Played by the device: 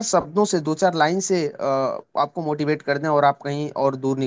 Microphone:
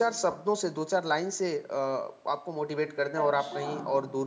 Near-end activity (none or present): present